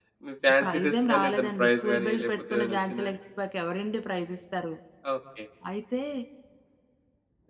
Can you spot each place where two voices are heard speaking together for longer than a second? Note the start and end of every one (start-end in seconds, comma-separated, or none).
0.6-3.1